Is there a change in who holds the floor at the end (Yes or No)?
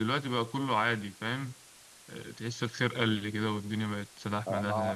Yes